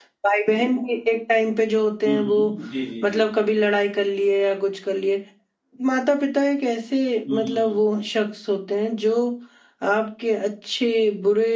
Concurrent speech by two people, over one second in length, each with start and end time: none

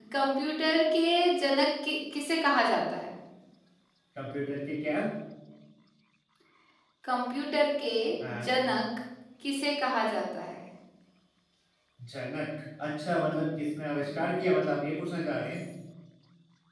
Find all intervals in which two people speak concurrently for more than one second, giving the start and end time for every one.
none

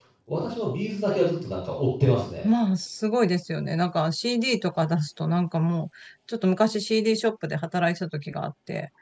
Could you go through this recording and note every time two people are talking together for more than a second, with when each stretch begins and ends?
none

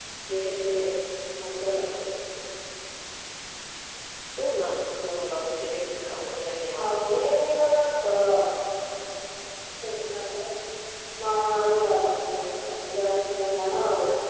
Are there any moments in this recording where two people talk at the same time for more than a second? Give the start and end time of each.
none

